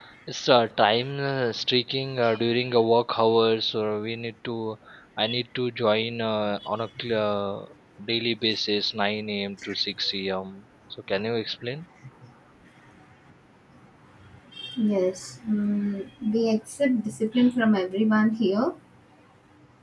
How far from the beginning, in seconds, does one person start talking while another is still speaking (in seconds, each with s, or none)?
none